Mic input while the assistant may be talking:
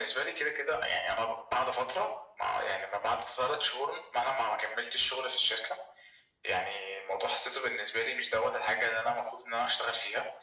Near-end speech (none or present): none